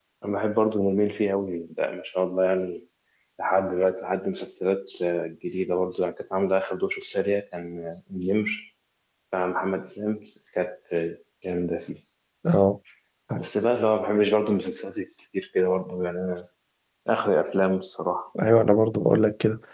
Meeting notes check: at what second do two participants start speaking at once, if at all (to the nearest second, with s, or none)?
none